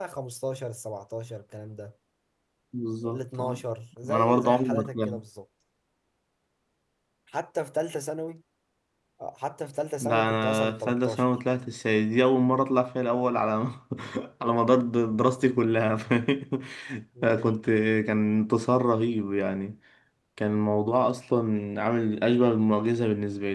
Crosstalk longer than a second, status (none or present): present